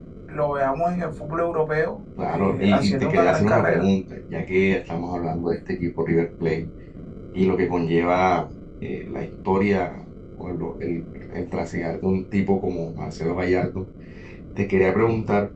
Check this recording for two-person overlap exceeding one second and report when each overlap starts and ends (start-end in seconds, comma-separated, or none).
2.3-3.9